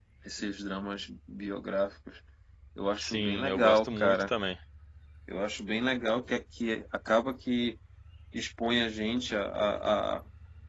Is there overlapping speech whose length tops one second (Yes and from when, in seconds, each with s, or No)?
Yes, from 3.0 s